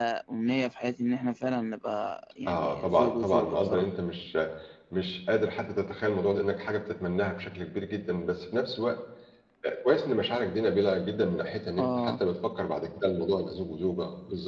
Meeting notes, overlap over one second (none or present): present